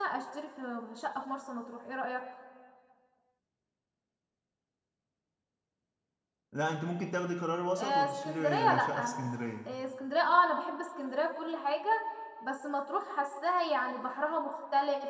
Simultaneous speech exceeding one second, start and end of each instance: 7.8-9.3

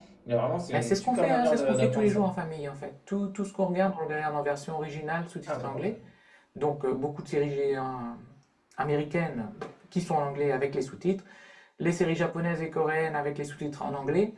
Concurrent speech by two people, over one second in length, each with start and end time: 0.7-2.2

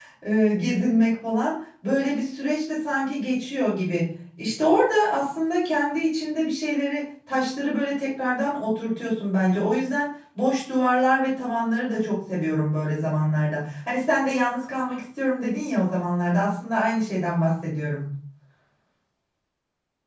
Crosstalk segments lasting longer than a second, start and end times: none

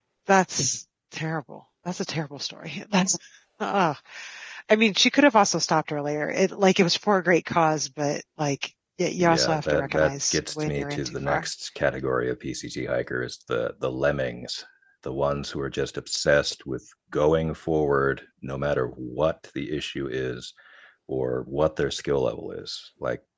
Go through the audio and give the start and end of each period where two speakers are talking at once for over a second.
9.2-11.4

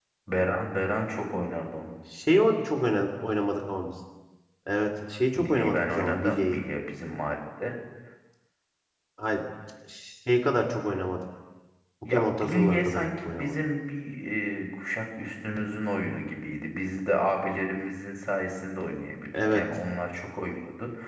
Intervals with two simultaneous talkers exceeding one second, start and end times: 5.3-6.6, 12.1-13.6

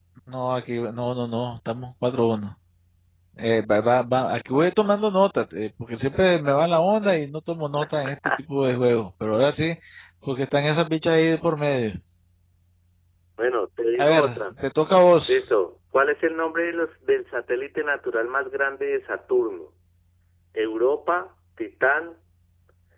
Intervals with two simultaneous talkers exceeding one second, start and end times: none

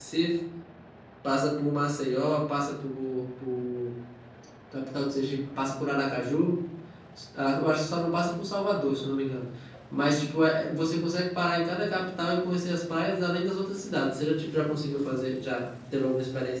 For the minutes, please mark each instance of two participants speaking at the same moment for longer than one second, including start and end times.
none

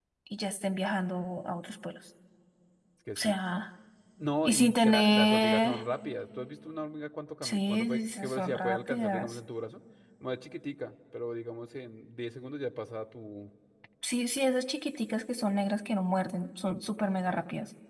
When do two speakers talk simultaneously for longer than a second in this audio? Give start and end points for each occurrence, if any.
4.5-5.8, 7.4-9.4

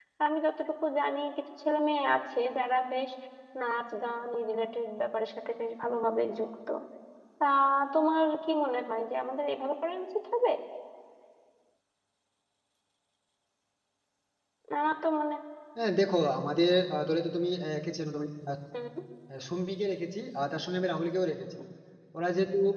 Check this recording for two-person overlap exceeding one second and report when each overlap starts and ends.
none

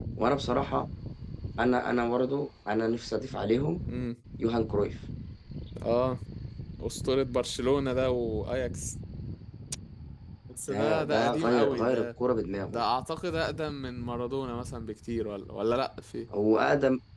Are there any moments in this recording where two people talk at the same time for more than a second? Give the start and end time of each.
10.7-12.1

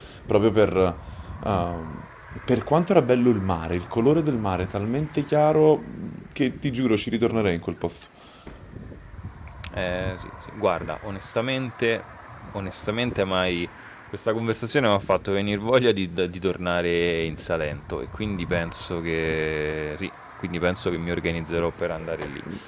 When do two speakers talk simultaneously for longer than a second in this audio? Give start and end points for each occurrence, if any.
none

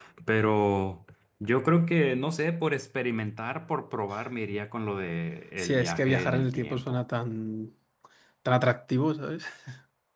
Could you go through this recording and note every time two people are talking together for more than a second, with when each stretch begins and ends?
5.6-7.0

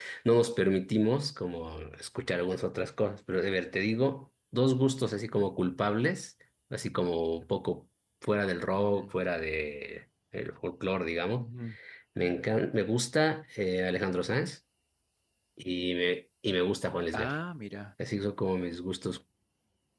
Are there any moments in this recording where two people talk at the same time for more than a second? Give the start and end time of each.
none

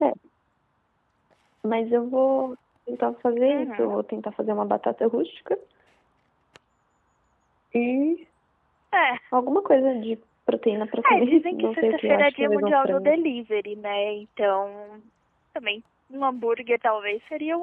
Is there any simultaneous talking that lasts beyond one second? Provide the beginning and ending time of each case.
11.2-13.1

